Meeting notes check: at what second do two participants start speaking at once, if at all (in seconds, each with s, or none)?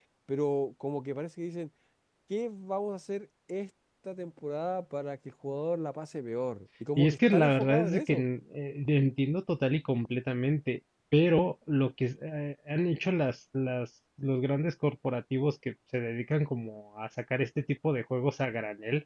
7.0 s